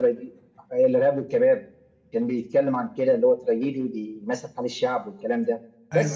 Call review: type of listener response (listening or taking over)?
listening